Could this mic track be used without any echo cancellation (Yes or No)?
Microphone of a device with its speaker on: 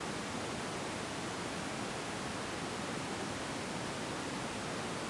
Yes